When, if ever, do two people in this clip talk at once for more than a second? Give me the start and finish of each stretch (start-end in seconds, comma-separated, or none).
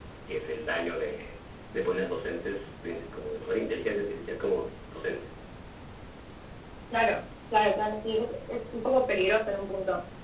none